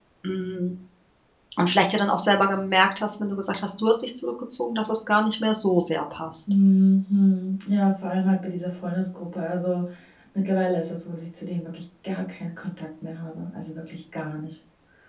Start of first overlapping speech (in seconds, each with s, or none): none